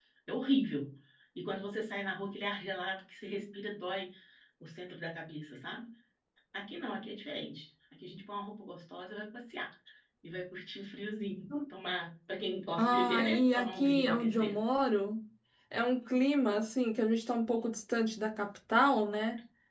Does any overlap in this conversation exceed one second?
Yes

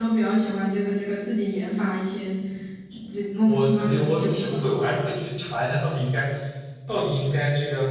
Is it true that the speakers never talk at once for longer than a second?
No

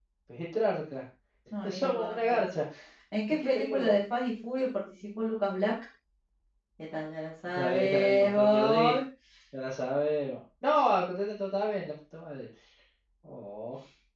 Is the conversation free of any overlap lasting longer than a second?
No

